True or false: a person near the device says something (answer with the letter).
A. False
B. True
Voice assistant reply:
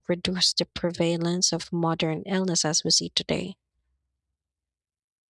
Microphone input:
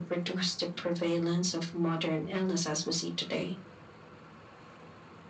A